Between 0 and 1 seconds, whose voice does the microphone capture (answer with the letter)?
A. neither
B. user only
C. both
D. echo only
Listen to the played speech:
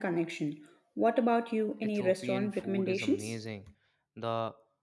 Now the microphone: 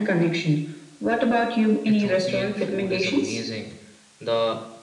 D